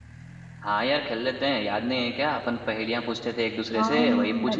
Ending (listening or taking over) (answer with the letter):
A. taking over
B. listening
A